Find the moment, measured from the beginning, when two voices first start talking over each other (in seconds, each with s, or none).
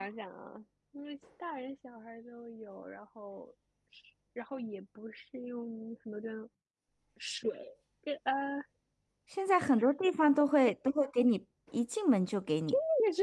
none